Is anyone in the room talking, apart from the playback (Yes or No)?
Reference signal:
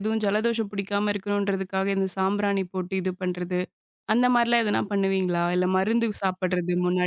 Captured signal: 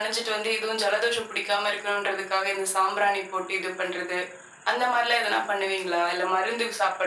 No